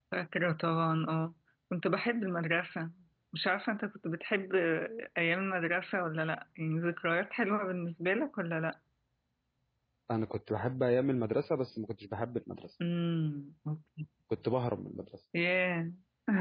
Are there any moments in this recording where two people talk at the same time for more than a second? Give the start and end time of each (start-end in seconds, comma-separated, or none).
none